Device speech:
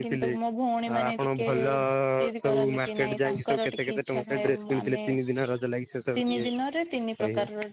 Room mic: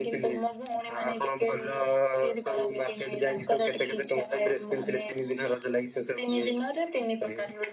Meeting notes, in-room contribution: none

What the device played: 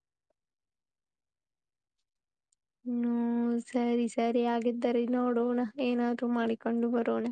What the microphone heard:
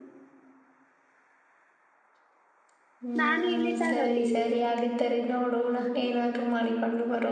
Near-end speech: present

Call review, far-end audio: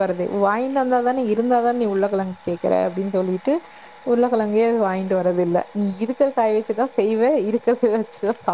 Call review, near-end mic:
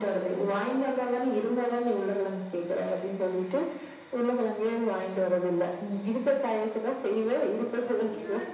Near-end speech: present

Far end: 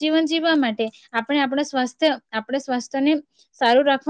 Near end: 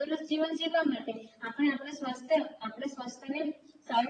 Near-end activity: none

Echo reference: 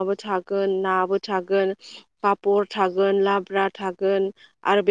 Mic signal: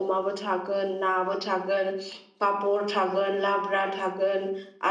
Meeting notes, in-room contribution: none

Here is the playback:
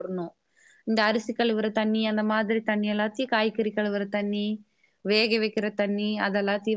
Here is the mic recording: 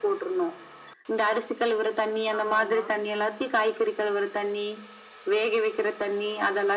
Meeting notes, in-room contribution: present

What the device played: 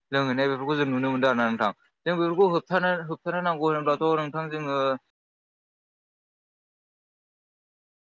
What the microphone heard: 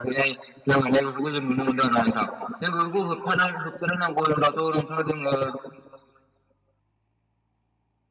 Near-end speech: none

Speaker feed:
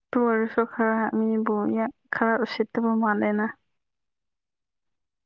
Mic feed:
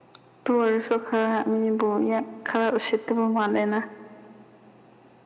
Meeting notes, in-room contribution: none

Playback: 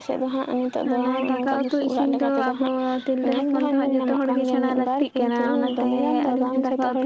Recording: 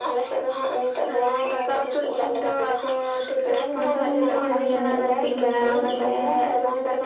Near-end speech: present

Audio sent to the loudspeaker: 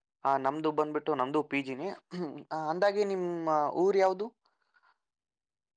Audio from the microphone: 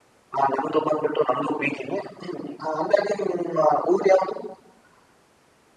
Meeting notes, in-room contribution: none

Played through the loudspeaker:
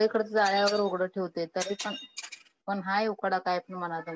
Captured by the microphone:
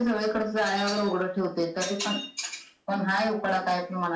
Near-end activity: none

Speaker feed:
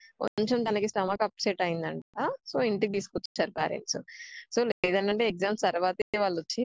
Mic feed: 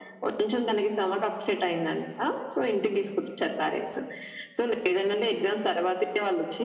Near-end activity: none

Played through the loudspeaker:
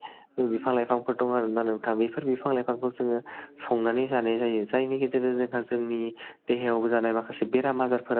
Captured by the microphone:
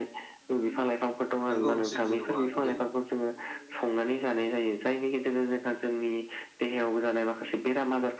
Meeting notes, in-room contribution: present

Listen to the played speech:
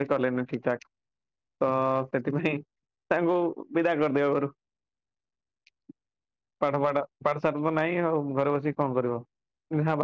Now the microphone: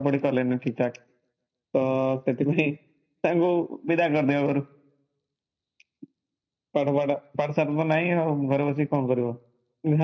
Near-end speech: none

